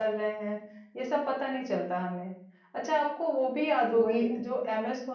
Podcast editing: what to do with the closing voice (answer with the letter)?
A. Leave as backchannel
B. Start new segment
A